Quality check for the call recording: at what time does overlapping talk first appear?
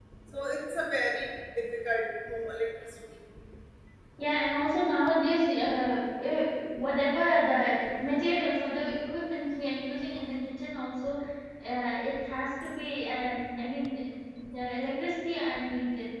none

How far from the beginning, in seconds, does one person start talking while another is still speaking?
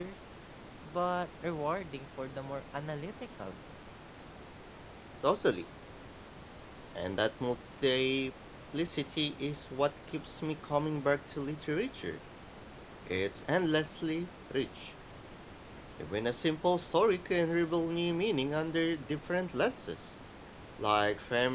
none

